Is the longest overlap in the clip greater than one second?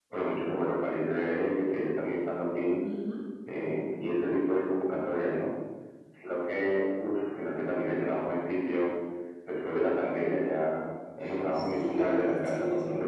Yes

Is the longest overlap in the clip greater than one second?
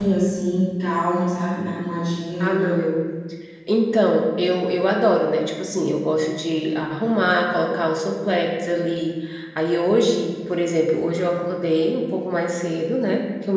No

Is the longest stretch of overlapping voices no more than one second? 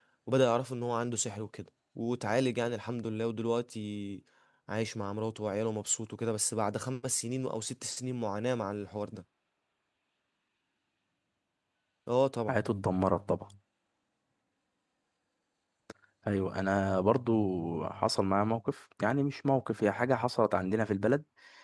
Yes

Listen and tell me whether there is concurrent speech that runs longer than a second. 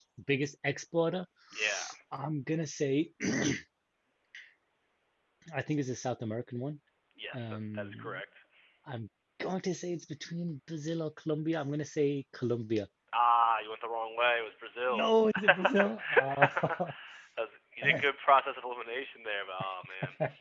Yes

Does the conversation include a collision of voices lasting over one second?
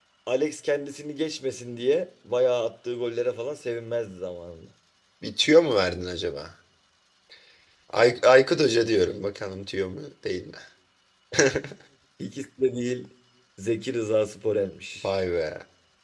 No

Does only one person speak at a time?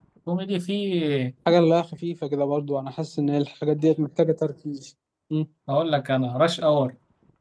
Yes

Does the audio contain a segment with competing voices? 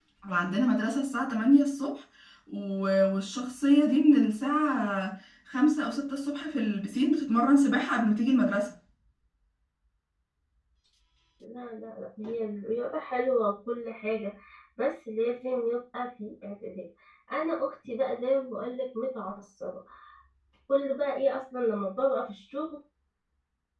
No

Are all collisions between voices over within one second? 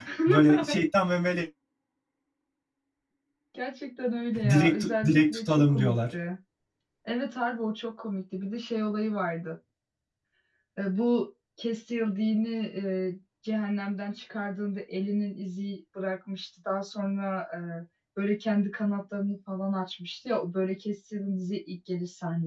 No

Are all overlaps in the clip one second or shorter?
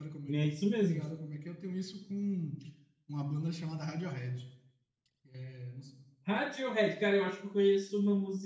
Yes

